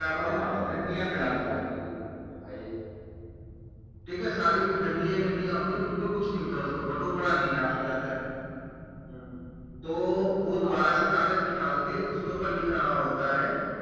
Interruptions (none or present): present